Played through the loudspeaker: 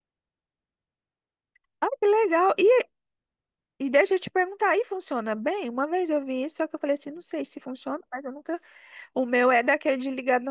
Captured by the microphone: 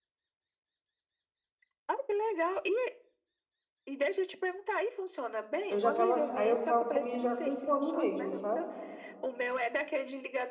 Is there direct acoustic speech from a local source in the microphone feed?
Yes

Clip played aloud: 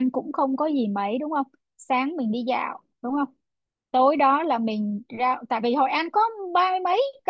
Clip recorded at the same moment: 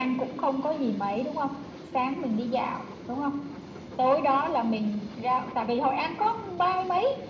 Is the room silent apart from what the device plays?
Yes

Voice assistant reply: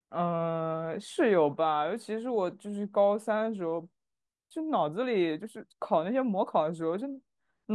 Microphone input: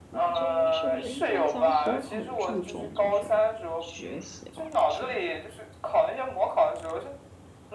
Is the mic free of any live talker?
No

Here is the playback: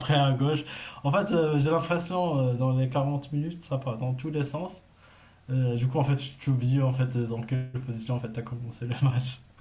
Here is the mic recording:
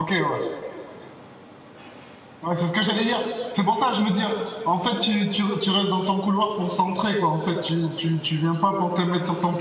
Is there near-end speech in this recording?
Yes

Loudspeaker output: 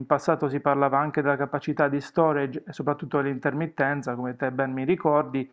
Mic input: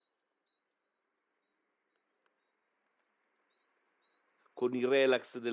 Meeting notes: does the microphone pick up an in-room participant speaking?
Yes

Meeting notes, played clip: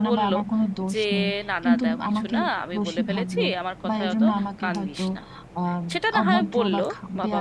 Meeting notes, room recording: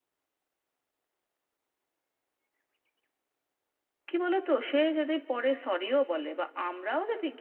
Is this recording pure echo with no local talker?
No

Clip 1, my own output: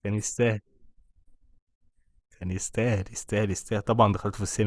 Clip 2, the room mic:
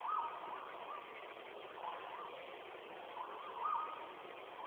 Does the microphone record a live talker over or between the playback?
No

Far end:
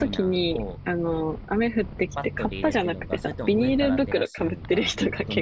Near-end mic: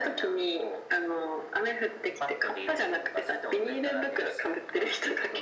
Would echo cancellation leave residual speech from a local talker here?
No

